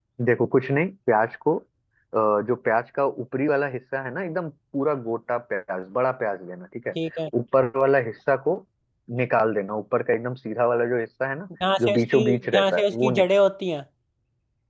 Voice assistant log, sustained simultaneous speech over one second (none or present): present